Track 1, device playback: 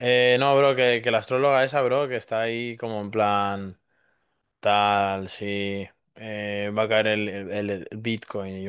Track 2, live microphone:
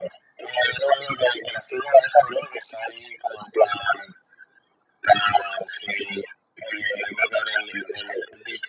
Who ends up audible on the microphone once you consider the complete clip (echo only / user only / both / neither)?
echo only